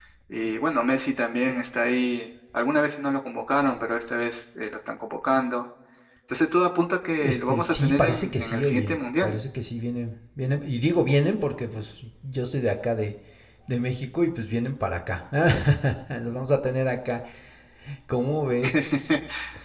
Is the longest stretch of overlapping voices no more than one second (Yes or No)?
No